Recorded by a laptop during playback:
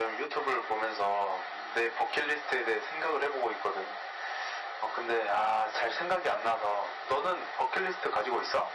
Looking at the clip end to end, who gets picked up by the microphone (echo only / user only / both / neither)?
echo only